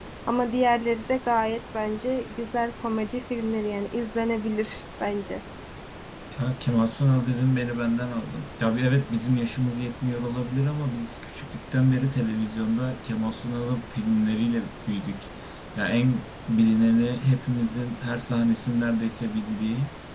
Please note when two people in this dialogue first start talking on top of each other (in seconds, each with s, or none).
none